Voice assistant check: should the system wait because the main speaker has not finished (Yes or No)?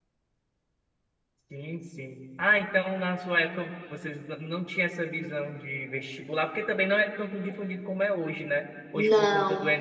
Yes